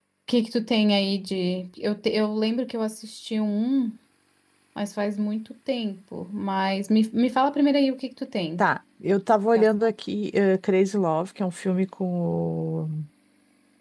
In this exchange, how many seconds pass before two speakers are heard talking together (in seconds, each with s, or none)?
none